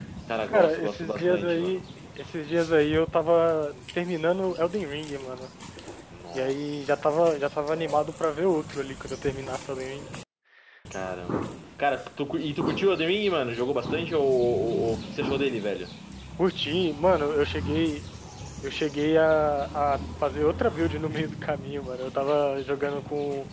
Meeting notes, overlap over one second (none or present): present